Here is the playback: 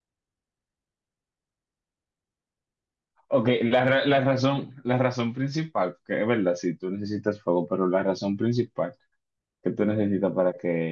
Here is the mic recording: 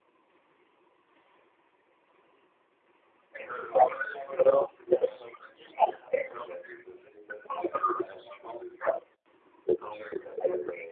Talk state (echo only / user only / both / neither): echo only